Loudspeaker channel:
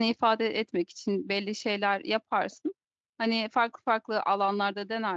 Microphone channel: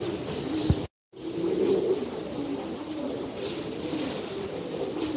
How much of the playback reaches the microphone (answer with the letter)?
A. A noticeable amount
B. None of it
B